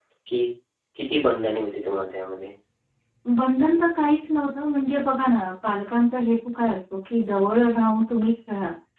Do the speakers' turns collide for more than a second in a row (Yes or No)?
No